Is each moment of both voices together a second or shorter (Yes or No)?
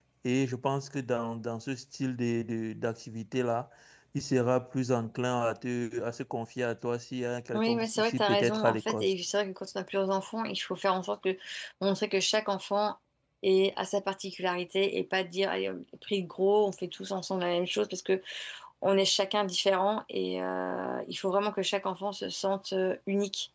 No